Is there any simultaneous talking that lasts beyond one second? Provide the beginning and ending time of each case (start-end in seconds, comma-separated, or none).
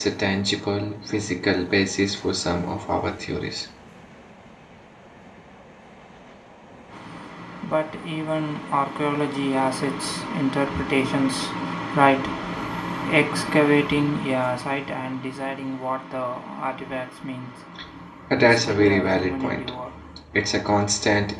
18.4-19.7